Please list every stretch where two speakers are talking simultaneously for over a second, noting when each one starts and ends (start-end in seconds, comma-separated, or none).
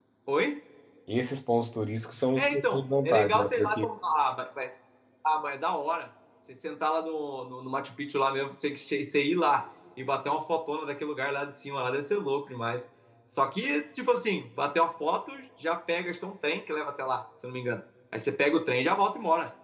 2.4-3.9